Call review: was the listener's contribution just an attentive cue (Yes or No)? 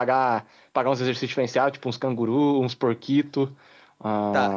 No